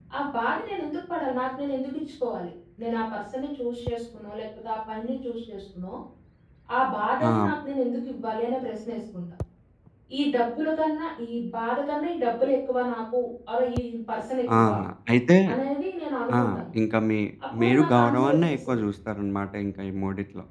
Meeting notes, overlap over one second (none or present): present